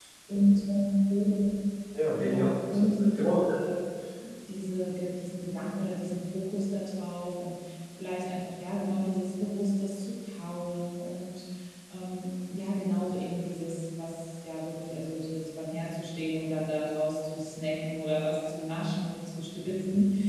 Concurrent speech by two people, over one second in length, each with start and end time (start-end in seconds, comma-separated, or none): 2.2-3.5